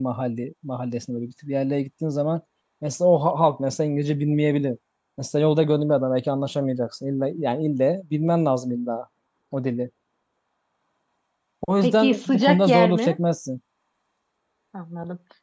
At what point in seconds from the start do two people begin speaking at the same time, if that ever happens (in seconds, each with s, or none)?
11.8 s